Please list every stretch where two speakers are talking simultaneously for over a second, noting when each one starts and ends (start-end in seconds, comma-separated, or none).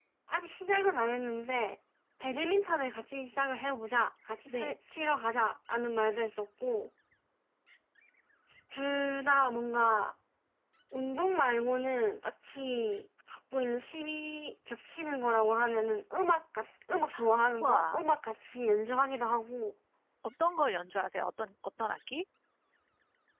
none